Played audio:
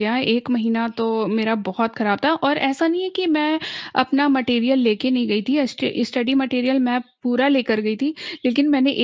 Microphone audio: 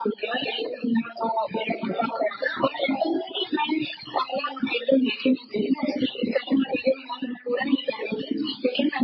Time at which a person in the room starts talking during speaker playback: none

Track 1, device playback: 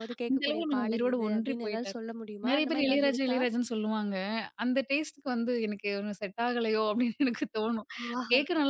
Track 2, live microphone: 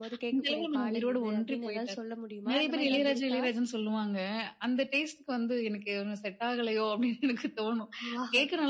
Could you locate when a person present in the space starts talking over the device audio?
none

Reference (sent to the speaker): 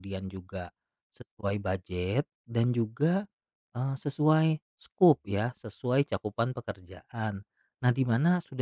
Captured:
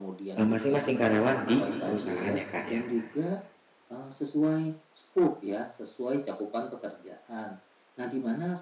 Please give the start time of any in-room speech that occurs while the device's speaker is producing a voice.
0.4 s

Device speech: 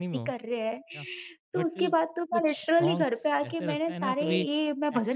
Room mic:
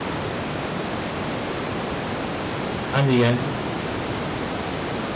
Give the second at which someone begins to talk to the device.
2.9 s

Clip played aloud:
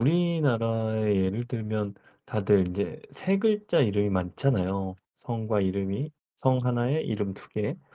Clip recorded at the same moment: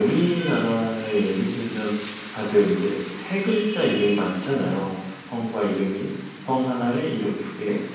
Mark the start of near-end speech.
none

